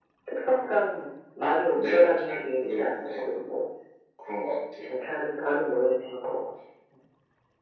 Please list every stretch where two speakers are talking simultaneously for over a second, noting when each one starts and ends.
1.7-3.2

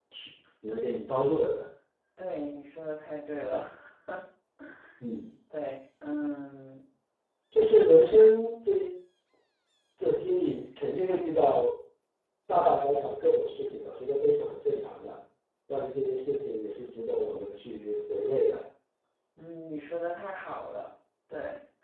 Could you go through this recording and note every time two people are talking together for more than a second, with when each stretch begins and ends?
none

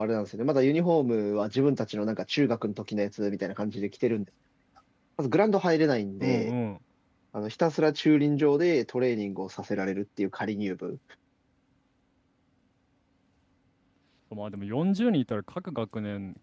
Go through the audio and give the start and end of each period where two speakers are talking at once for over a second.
none

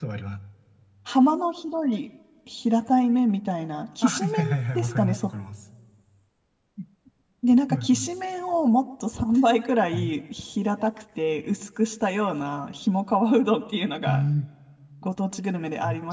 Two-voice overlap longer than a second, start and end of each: 4.0-5.3

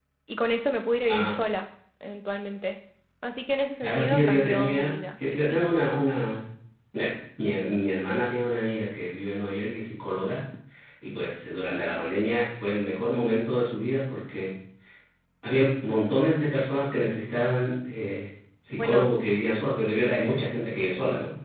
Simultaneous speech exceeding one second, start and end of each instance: 3.8-5.6

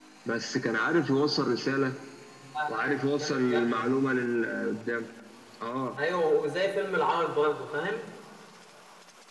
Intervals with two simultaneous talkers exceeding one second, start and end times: 2.7-4.0

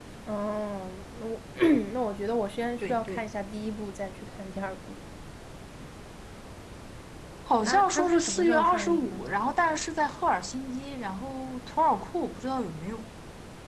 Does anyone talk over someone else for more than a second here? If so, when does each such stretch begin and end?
7.6-9.2

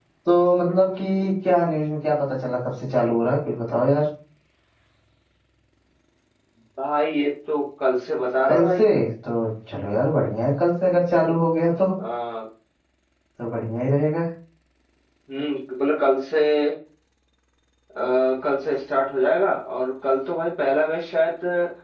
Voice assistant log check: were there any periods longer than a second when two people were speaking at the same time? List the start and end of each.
none

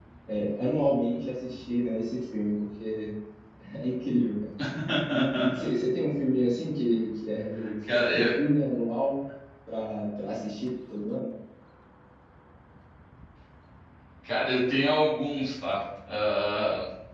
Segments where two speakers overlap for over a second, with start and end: none

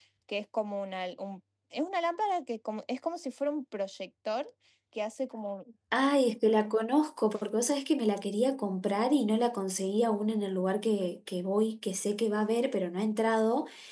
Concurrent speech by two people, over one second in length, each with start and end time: none

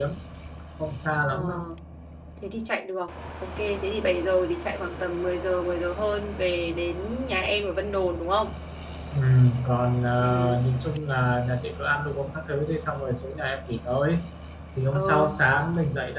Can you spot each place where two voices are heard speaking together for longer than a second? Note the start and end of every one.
none

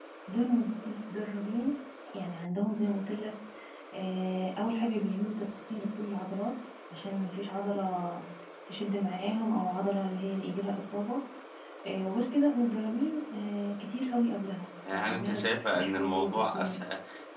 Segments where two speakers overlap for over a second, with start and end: 14.9-16.8

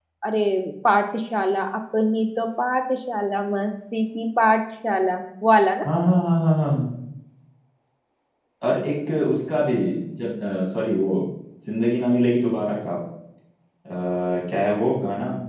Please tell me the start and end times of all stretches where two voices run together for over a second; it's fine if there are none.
none

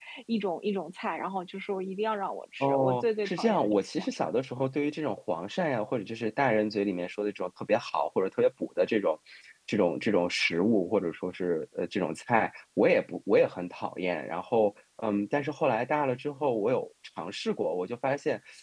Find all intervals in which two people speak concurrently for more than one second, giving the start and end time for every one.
2.6-4.3

